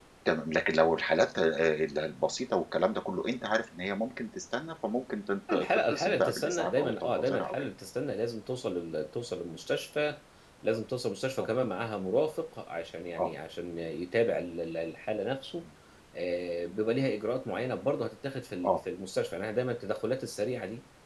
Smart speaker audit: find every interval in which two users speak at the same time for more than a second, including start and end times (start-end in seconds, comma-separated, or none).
5.5-7.7